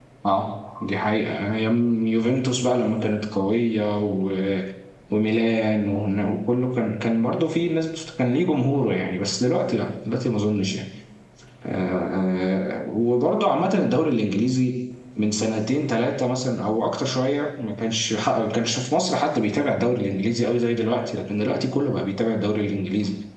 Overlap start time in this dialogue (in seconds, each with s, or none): none